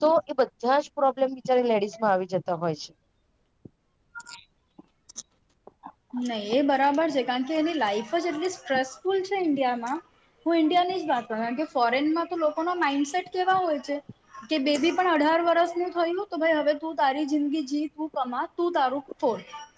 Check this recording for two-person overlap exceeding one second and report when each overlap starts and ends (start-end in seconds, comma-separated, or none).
none